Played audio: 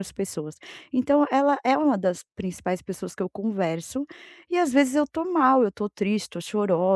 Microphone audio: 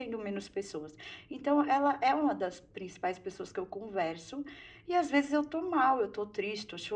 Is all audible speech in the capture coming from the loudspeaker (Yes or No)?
Yes